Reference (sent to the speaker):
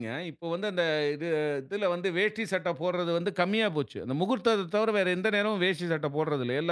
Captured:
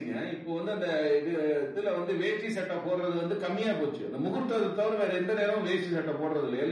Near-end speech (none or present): none